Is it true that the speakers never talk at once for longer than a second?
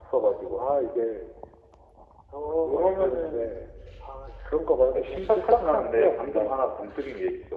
No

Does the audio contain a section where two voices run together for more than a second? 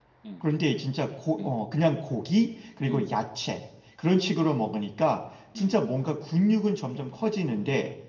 No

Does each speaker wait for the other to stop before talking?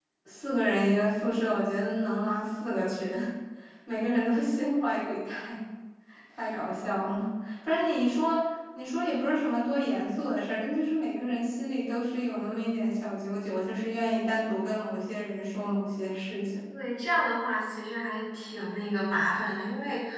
Yes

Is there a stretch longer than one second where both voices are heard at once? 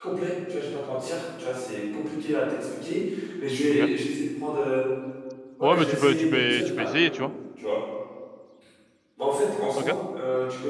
Yes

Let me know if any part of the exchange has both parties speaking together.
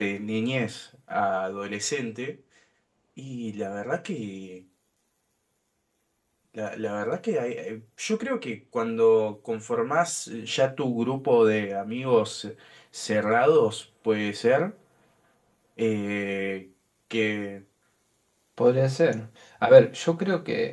No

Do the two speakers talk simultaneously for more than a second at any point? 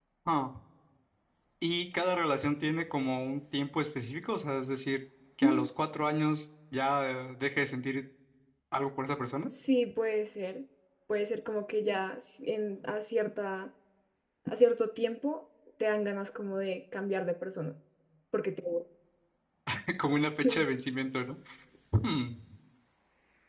No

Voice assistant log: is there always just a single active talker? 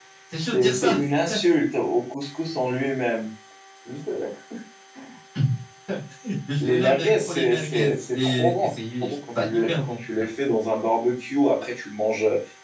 No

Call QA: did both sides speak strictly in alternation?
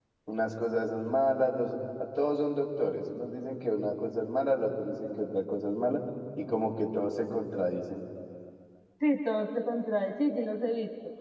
Yes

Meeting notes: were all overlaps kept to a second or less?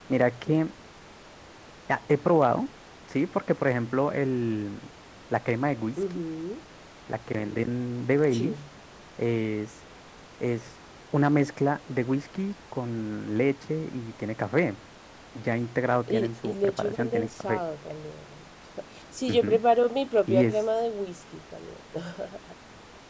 No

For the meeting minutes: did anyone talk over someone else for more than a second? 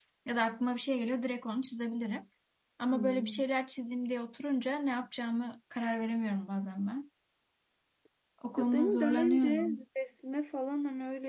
Yes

